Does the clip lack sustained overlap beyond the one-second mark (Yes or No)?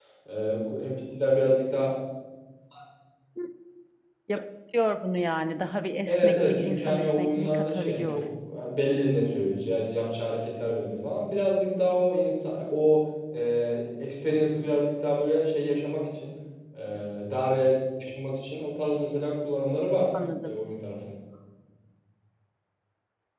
No